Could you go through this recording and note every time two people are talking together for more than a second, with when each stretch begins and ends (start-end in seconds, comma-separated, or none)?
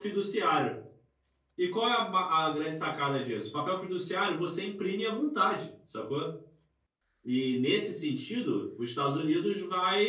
none